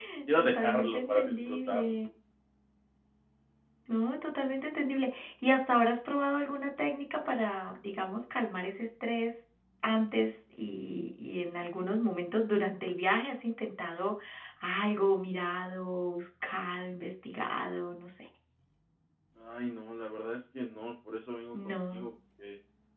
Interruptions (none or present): present